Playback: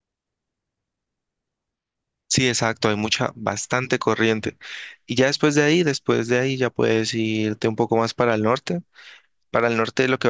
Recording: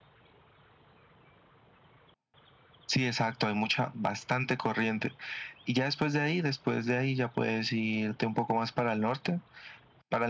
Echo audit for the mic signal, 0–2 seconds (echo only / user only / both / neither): neither